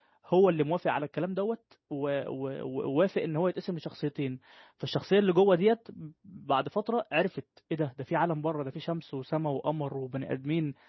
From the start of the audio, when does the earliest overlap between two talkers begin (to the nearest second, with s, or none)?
none